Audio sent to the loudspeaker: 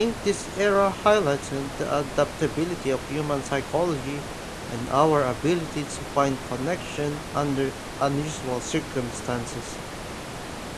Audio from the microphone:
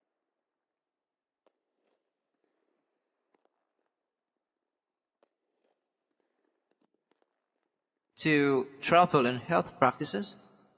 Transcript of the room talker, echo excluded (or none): to travel and health practices.